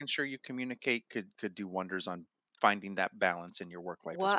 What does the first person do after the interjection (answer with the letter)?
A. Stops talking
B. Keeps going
A